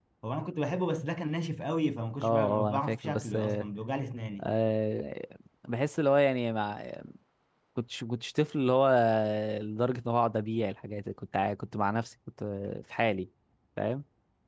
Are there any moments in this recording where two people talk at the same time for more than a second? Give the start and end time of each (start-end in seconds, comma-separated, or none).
2.2-3.6